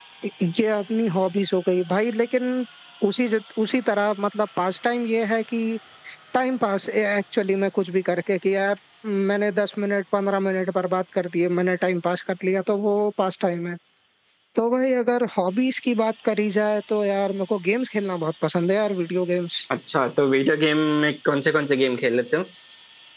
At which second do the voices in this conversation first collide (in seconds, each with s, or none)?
none